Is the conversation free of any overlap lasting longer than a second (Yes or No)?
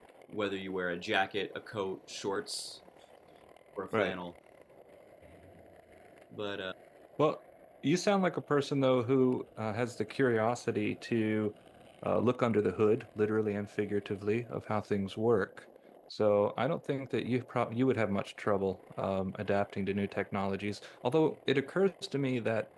Yes